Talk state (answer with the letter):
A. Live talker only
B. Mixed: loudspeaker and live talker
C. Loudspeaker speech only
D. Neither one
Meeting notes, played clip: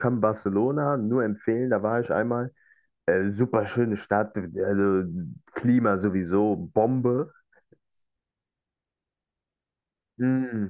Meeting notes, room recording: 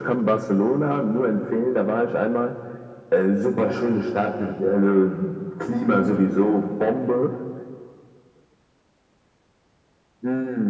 C